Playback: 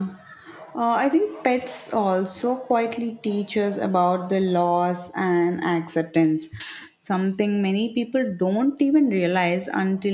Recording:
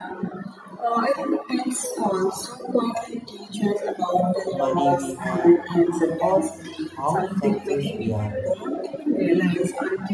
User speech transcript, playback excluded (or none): money we have or how success we are